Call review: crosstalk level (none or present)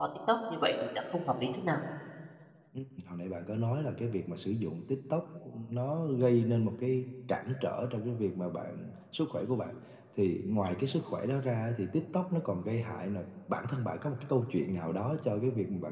none